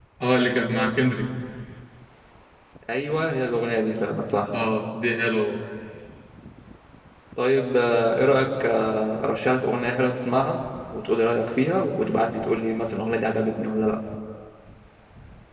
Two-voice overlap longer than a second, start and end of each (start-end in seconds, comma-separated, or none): none